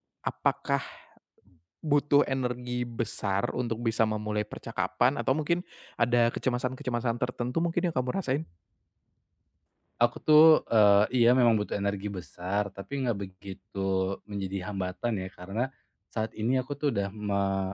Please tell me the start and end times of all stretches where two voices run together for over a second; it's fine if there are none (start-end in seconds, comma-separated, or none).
none